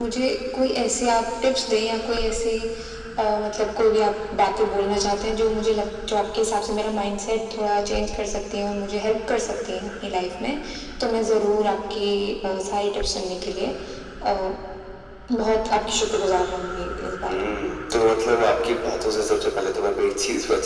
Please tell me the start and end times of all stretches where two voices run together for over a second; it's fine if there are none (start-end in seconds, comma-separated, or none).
none